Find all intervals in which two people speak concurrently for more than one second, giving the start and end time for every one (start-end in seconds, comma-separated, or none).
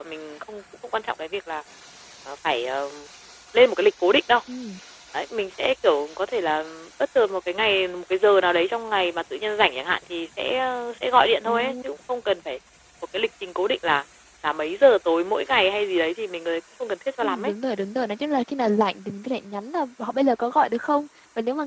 none